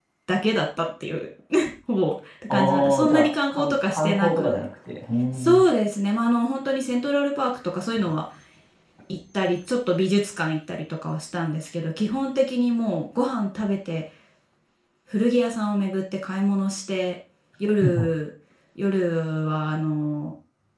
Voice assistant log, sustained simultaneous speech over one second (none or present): present